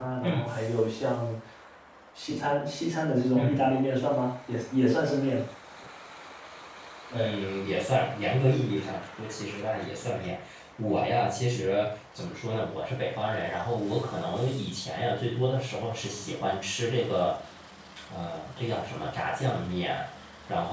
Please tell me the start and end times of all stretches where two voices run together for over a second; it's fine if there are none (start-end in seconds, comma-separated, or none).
none